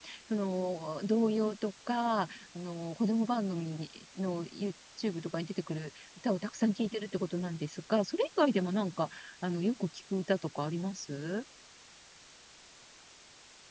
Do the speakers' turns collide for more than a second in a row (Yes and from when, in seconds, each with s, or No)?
No